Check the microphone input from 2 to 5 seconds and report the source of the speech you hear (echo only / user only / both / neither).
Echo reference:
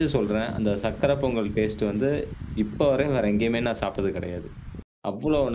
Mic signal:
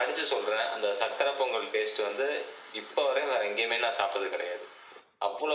echo only